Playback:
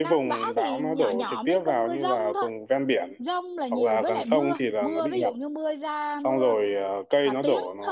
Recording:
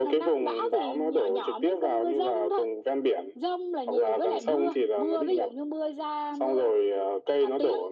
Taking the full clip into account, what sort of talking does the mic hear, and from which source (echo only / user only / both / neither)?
echo only